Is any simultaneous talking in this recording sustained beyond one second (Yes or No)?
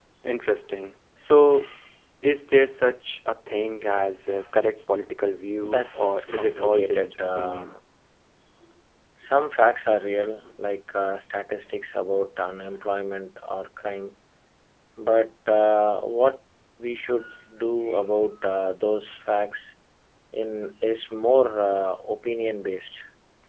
Yes